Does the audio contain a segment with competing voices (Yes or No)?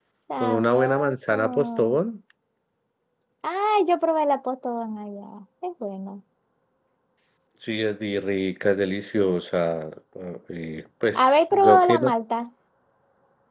Yes